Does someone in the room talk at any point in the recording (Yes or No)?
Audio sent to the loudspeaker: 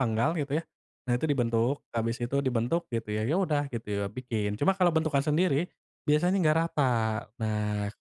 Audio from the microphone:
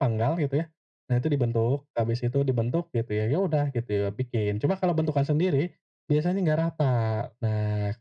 No